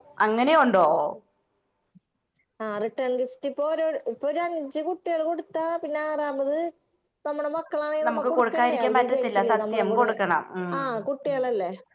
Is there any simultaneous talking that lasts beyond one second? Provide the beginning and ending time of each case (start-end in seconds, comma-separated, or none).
8.1-10.0